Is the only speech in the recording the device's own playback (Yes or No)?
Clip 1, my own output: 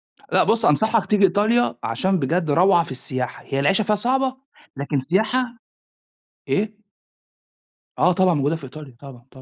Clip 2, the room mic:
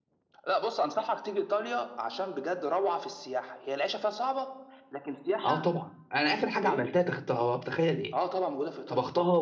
No